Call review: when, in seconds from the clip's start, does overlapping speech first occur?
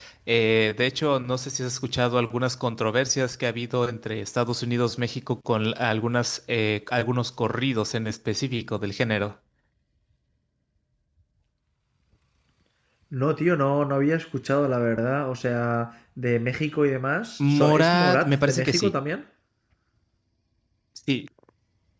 17 s

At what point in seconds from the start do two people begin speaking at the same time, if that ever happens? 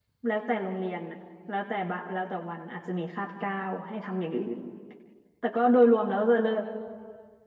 none

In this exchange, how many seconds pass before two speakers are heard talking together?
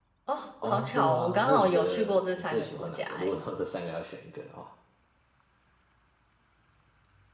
1 s

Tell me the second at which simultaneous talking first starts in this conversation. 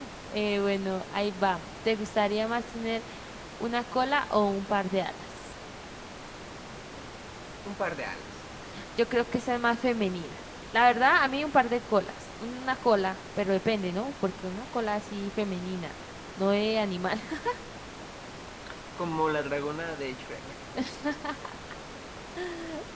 none

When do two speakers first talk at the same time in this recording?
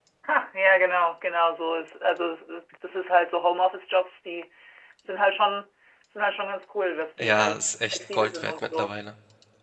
7 s

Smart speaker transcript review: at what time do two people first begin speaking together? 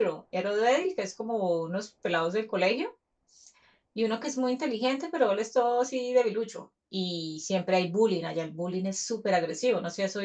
none

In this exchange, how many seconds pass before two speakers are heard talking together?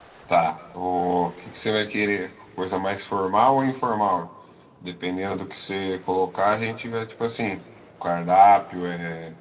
none

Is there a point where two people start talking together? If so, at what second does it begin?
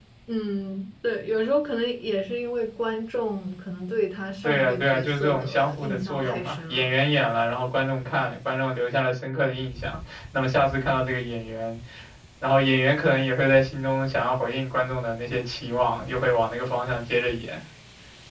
4 s

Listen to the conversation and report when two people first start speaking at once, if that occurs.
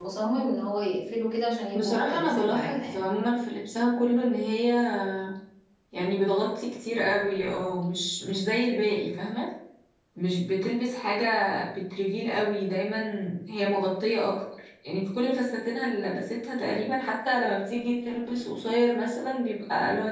2 s

